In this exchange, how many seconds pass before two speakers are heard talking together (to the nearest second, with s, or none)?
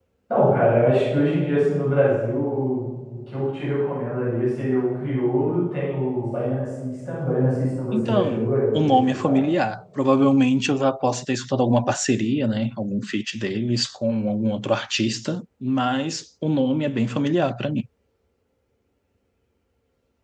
8 s